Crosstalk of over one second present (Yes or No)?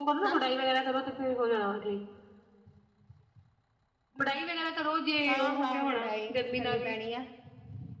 Yes